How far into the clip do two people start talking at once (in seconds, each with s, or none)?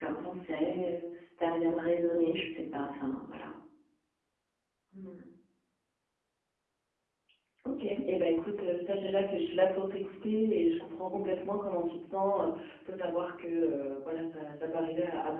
none